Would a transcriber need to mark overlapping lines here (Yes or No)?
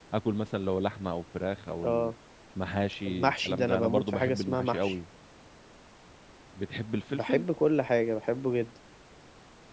Yes